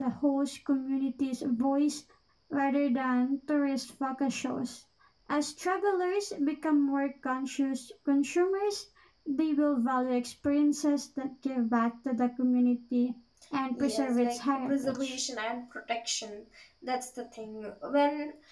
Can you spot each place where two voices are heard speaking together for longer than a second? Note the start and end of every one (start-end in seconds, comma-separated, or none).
13.7-15.2